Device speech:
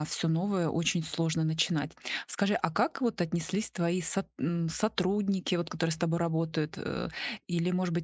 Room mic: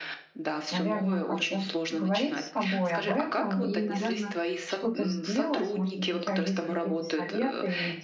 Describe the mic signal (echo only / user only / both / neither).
both